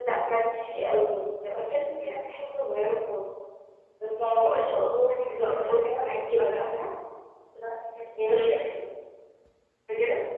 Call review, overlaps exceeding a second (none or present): present